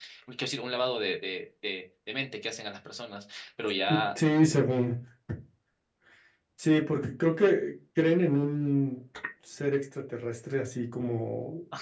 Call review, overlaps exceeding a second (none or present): none